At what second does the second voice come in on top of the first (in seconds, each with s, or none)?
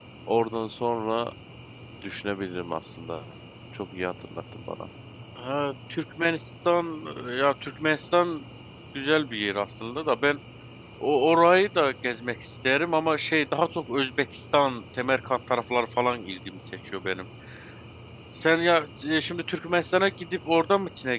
none